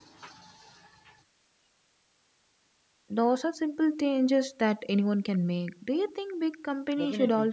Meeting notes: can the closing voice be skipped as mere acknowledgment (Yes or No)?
No